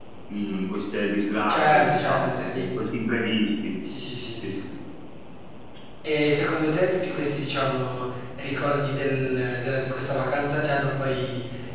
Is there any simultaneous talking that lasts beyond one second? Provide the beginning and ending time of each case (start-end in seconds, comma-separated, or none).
1.5-2.9